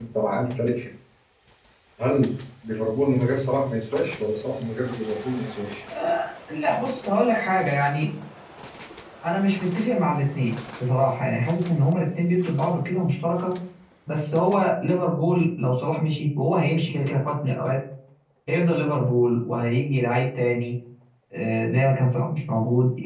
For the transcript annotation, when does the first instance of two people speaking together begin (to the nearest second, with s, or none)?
none